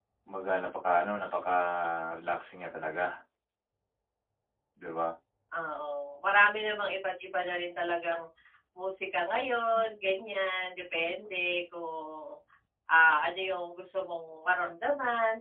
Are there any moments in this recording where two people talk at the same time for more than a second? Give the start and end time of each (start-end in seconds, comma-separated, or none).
none